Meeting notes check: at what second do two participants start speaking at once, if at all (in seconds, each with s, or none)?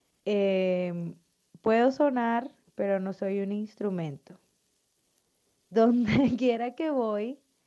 none